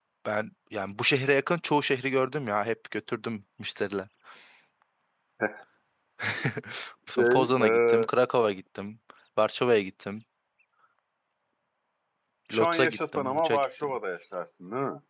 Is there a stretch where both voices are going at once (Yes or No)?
Yes